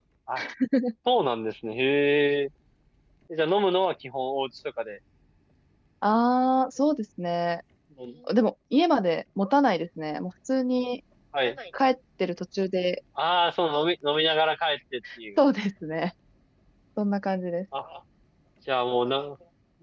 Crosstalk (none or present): none